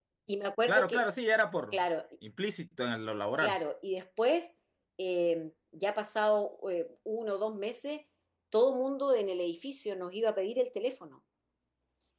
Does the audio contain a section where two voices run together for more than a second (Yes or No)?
No